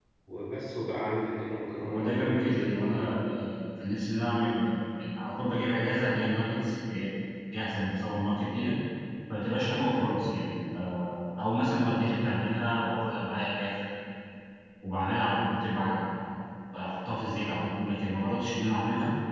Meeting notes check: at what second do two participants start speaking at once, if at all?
1.8 s

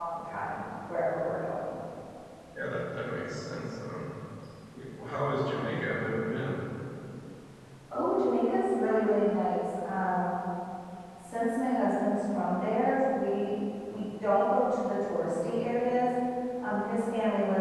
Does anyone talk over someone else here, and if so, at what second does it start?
none

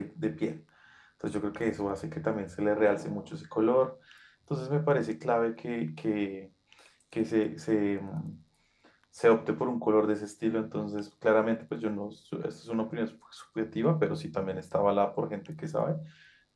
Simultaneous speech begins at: none

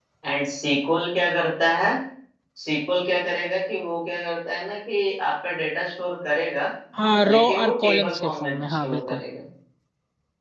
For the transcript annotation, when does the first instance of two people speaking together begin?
7.2 s

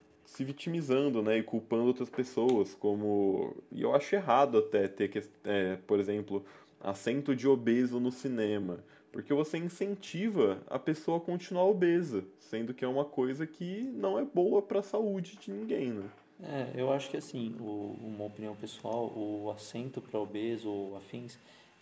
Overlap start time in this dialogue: none

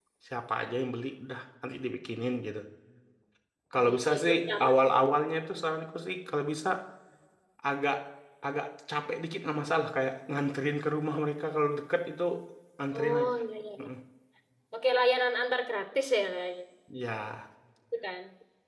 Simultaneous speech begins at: 3.8 s

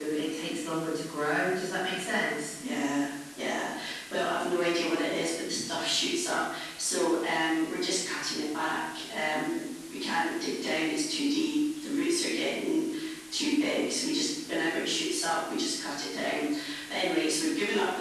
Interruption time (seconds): none

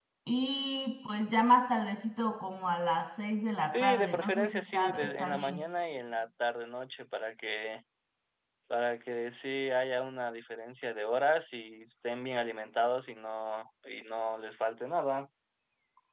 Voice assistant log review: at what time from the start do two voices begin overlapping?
3.7 s

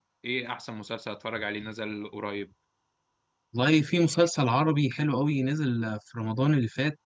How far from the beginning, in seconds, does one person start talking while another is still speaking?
none

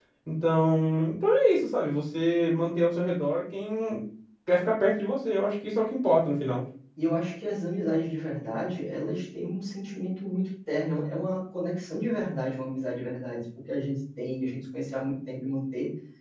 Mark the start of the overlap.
none

